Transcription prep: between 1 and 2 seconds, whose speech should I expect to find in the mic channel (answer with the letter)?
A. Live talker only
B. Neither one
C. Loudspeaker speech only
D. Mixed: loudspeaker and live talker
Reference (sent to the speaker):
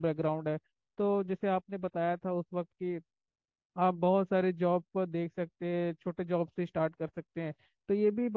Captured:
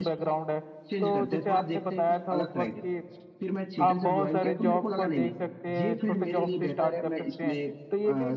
D